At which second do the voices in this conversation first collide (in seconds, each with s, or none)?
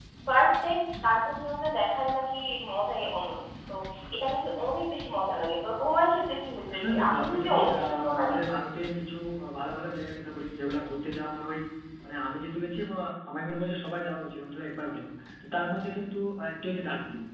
6.7 s